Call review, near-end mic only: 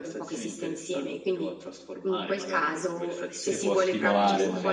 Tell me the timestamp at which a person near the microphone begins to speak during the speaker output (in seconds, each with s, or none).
3.5 s